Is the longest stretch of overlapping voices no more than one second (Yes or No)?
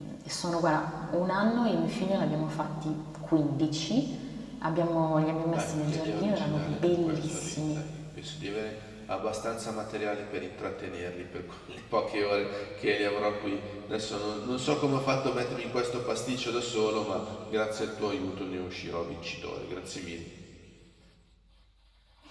No